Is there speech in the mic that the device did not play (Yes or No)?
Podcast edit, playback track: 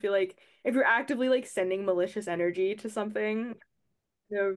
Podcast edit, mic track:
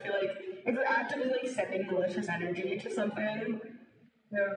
No